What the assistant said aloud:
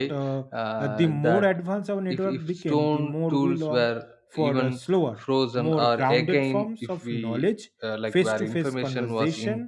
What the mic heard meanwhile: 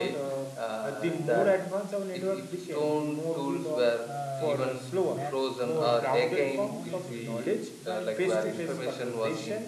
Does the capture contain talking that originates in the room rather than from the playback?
Yes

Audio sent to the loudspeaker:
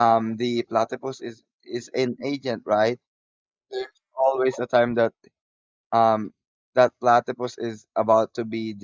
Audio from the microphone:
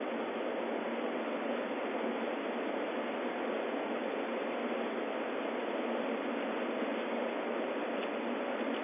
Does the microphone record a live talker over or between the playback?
No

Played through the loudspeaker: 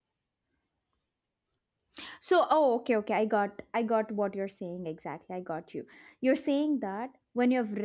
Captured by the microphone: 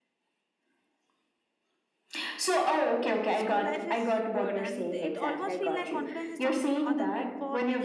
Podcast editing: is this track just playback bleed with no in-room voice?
No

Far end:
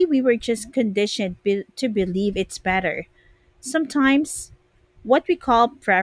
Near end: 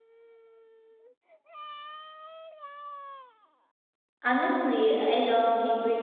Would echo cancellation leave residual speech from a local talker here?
Yes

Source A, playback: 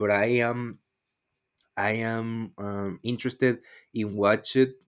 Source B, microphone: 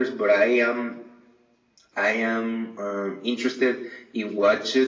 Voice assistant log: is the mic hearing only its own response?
Yes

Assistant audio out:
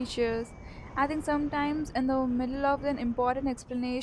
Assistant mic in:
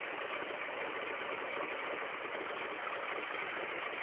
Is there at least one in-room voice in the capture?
No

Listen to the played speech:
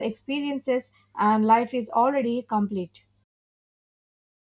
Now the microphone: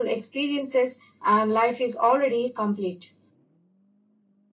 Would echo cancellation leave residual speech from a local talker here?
No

